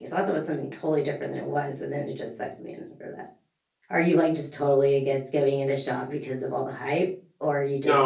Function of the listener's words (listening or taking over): taking over